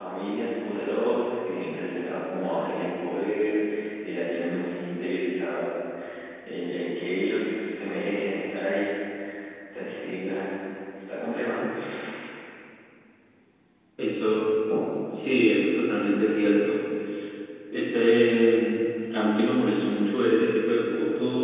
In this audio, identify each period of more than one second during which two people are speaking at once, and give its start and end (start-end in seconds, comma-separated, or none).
none